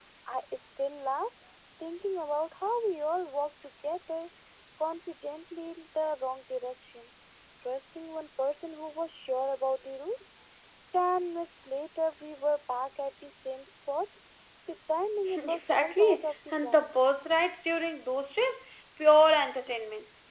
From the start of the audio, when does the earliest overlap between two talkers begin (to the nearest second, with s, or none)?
15 s